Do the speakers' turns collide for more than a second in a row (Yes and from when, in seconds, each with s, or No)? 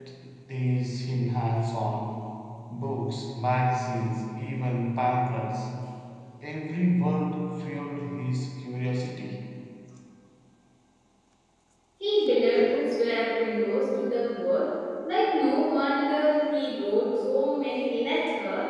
No